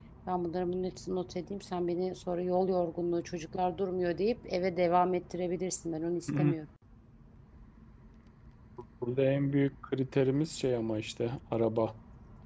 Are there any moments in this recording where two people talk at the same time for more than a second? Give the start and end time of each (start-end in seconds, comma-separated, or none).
none